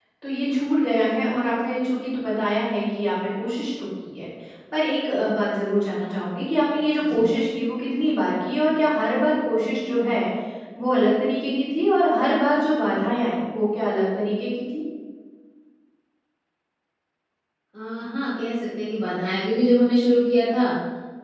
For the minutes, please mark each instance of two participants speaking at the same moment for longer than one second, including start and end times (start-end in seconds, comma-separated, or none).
none